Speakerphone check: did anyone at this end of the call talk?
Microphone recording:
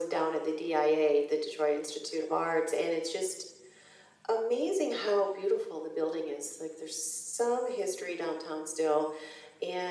No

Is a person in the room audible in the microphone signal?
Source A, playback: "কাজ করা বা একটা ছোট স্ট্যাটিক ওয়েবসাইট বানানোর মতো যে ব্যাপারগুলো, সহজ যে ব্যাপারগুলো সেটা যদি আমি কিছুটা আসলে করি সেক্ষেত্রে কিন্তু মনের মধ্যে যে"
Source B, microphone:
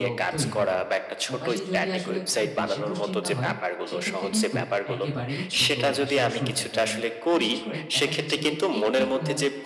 Yes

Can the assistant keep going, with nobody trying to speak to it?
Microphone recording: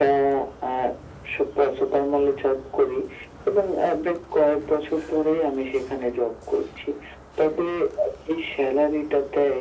Yes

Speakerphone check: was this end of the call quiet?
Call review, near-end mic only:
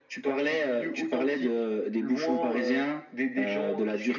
Yes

